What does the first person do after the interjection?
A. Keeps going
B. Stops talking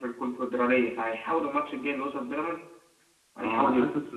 B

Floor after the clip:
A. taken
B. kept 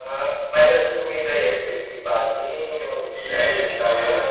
A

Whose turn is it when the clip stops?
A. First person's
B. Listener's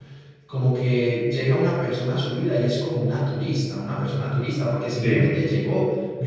A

